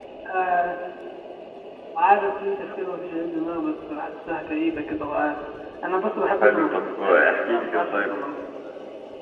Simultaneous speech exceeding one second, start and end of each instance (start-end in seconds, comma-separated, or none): 6.4-8.1